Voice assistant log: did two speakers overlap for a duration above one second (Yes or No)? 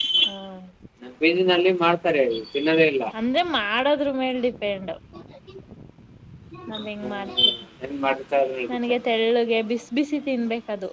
No